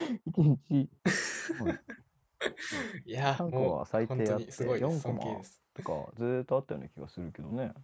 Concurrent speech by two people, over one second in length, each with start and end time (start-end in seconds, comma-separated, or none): 3.4-5.4